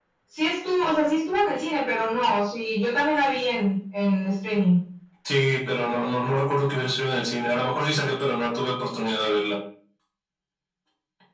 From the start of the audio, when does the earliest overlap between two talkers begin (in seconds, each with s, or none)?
none